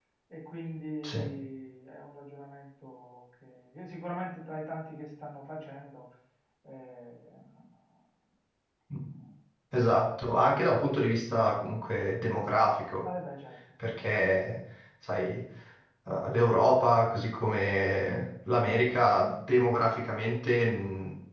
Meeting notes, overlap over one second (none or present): none